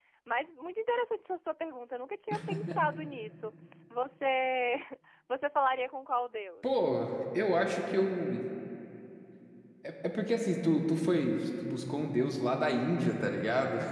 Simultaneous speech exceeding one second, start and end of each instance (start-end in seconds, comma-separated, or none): none